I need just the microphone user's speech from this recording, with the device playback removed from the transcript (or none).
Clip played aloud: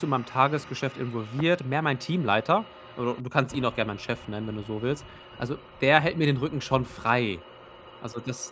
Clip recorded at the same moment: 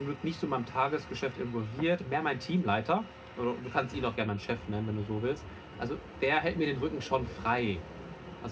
none